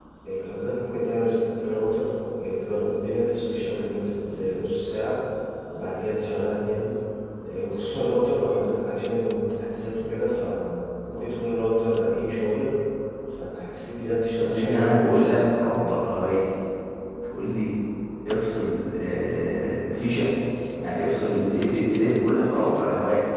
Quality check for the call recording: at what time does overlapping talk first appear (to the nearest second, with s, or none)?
14 s